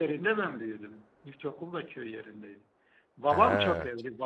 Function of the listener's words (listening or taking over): listening